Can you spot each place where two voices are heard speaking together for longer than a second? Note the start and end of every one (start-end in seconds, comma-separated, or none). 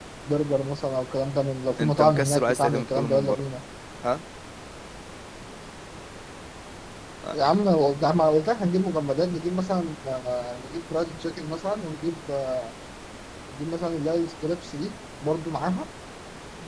1.8-3.5